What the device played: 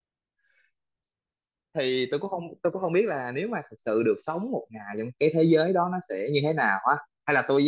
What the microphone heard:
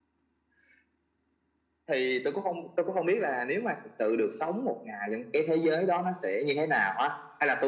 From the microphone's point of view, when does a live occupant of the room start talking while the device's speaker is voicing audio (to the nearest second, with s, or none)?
none